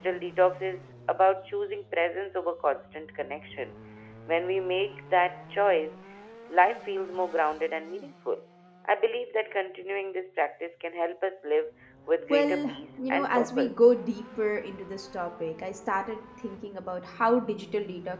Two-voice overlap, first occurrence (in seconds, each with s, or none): 12.3 s